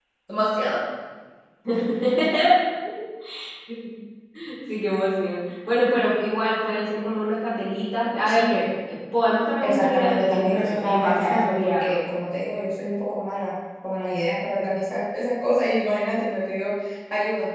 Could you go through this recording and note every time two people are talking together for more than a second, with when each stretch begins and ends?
9.6-12.0

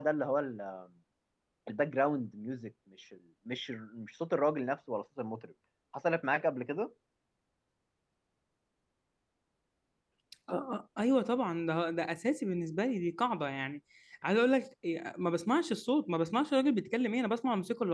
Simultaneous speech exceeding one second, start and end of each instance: none

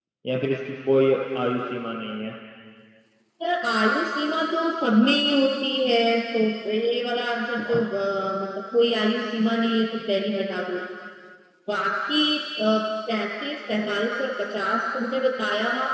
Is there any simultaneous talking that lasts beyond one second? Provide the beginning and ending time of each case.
none

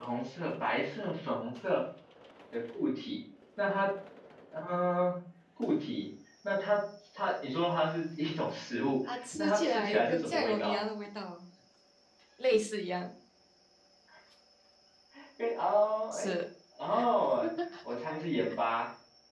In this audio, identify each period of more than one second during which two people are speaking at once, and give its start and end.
9.1-10.8

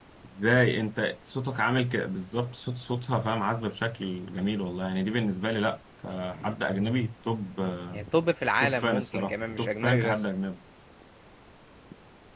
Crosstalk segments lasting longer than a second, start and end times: 8.6-10.2

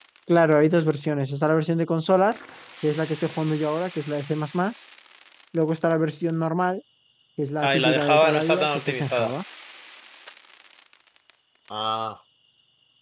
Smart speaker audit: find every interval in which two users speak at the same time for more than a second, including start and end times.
7.6-9.3

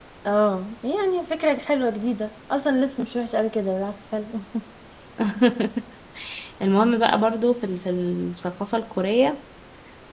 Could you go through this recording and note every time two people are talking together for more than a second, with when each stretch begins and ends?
none

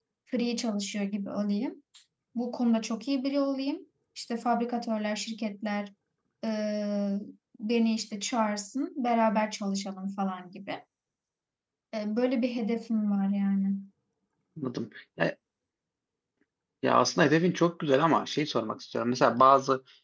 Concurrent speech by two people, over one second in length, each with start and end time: none

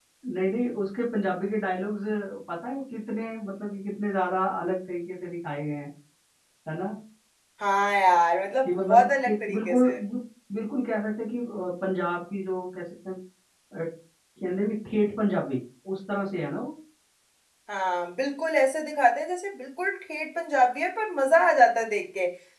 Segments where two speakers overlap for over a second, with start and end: 8.6-9.9

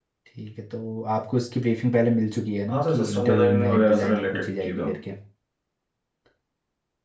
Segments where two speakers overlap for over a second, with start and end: 2.7-5.0

